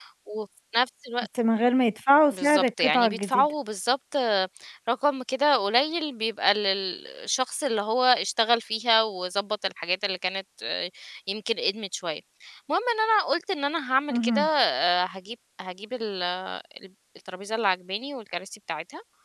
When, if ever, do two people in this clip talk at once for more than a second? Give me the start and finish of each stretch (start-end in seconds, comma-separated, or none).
2.3-3.5